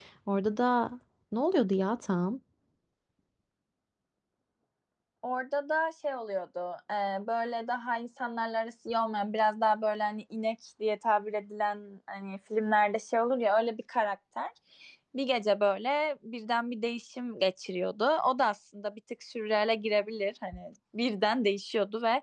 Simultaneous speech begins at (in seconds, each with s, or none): none